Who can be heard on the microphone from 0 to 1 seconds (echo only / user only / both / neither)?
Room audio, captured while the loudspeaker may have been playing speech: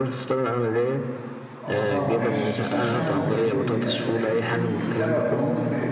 echo only